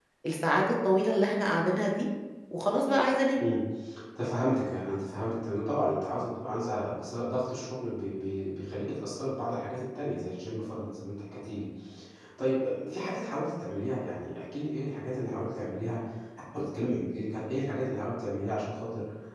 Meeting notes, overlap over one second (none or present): none